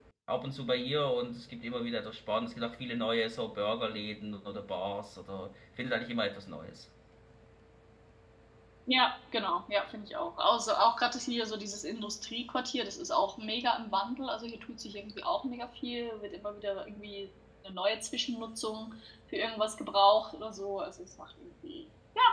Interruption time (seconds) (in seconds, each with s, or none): none